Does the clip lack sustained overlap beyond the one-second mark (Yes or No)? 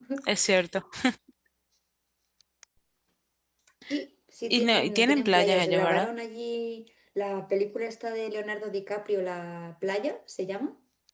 No